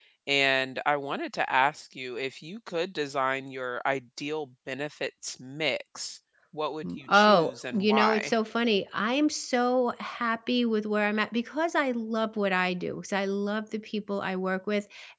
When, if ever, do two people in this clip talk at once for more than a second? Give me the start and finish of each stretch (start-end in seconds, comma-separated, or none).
6.8-8.3